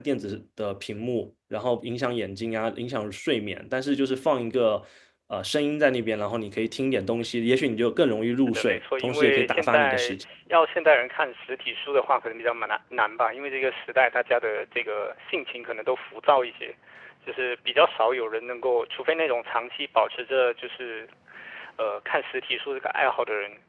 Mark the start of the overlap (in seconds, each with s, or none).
8.4 s